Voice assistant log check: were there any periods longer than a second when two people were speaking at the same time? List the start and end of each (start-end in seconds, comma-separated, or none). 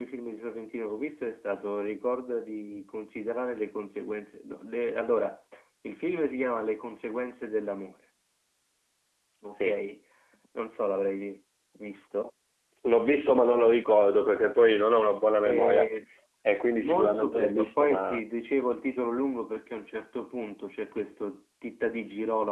16.8-18.2